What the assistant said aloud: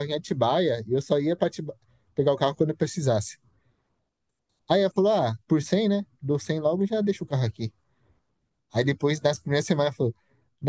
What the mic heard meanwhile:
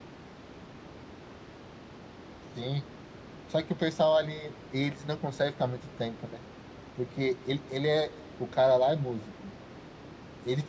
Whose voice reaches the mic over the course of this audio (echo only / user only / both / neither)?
user only